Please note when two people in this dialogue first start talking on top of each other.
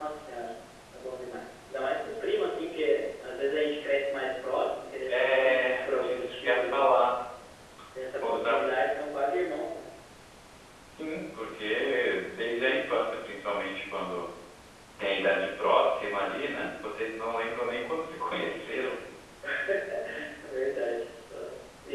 5.1 s

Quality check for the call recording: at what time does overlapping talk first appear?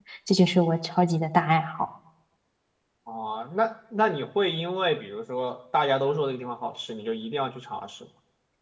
none

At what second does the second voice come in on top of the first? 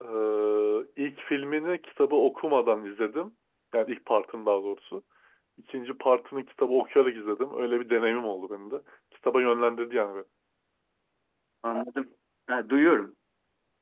none

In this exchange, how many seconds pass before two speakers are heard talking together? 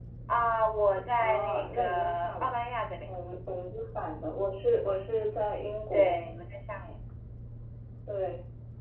1.2 s

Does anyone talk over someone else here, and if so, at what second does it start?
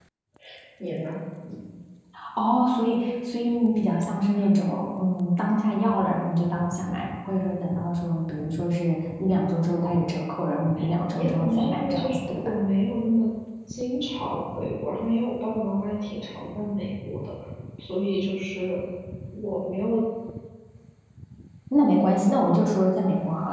11.2 s

